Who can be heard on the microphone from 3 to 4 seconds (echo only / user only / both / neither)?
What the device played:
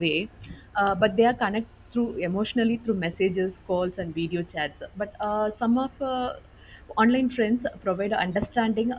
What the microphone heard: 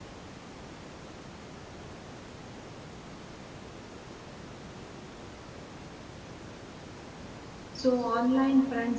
neither